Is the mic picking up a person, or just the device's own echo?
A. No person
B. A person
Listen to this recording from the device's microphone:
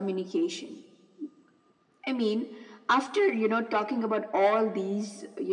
A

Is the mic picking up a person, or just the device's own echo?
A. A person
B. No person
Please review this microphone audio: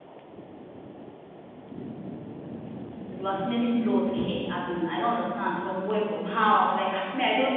A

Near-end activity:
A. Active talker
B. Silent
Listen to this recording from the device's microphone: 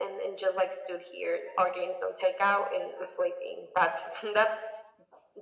B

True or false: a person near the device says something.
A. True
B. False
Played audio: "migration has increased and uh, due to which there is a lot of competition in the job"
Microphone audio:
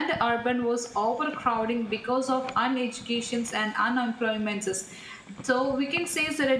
A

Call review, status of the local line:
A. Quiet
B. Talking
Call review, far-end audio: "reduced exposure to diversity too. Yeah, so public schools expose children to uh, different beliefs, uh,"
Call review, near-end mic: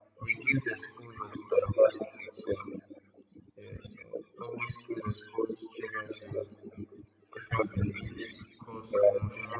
B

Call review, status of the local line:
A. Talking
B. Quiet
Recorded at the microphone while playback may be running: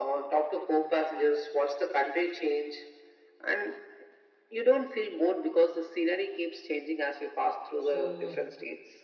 A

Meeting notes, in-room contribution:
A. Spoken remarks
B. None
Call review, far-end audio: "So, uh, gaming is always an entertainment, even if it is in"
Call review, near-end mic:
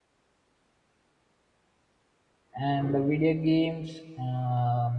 A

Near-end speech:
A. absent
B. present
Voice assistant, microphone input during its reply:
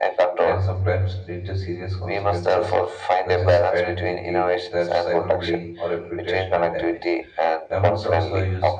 B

